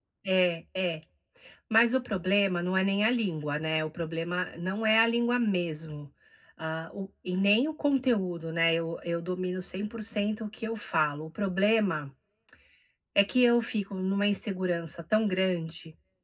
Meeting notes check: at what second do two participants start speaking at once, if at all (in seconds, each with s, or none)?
none